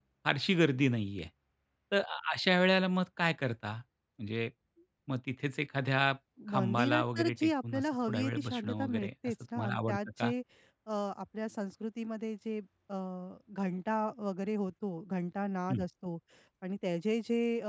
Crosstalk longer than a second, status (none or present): present